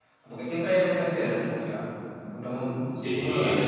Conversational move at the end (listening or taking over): taking over